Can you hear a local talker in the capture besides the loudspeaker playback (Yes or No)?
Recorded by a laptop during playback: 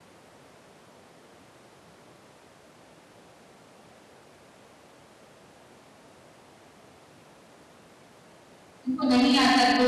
Yes